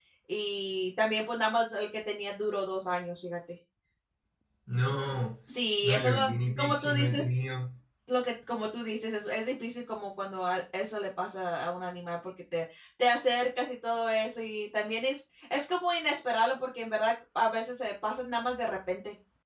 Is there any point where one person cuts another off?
Yes, from 5.8 s

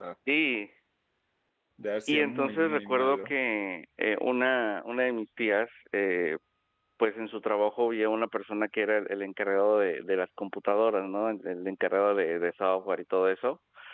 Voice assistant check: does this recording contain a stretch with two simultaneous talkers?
Yes, from 2.1 s

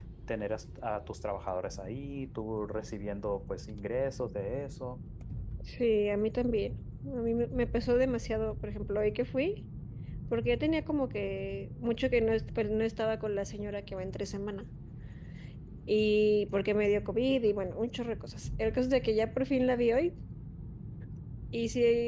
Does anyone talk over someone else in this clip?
No

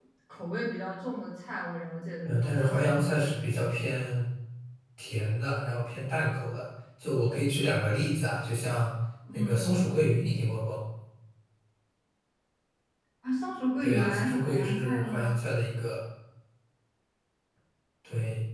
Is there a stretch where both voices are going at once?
Yes, from 2.2 s

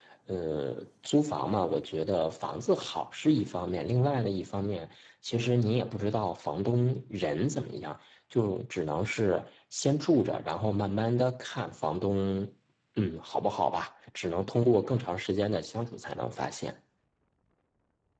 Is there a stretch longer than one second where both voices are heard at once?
No

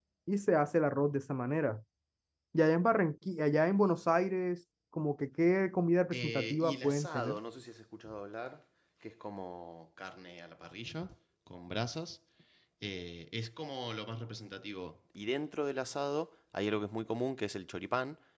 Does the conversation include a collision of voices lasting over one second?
Yes, from 6.1 s

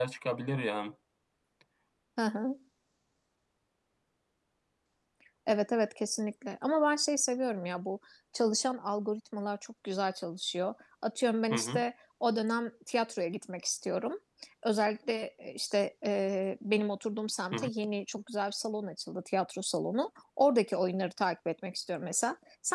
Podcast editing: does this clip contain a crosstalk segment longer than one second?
No

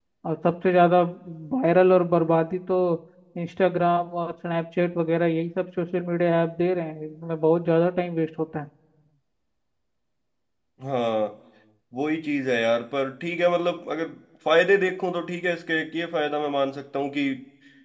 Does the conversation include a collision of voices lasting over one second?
No

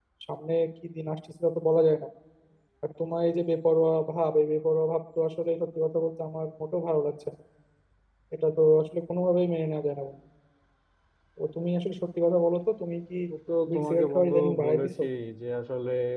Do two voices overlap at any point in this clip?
Yes, from 13.7 s

